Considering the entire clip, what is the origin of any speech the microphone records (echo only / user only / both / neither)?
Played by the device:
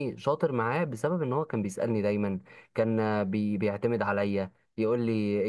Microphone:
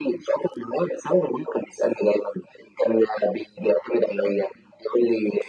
echo only